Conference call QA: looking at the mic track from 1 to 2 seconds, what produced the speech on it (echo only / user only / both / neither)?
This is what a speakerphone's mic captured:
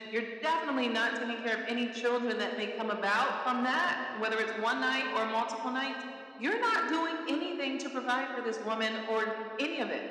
echo only